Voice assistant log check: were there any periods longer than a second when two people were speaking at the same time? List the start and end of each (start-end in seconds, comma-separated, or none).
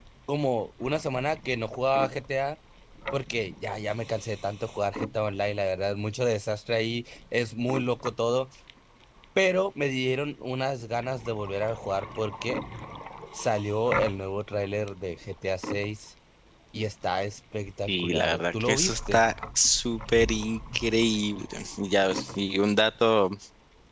17.9-19.2